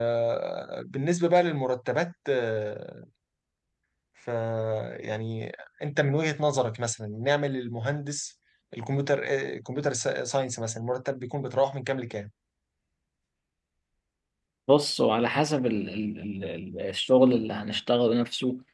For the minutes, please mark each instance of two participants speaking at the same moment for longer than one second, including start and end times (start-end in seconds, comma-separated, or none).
none